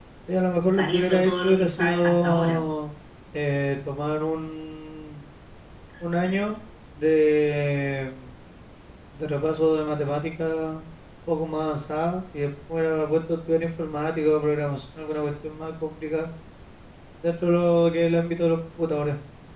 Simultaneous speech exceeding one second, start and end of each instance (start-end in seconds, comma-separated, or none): 0.7-2.6